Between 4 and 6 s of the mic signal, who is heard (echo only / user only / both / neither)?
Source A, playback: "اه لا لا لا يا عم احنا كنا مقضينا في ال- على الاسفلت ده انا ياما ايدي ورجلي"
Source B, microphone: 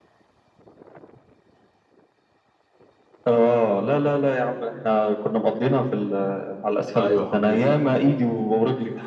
echo only